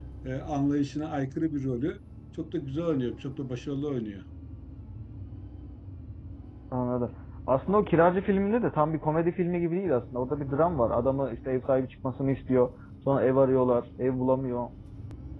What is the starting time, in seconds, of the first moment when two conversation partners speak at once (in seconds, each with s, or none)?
none